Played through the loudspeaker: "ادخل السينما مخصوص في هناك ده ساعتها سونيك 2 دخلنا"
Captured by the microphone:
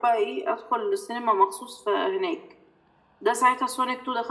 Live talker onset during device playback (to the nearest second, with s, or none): none